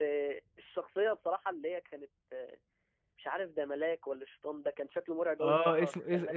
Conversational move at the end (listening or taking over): taking over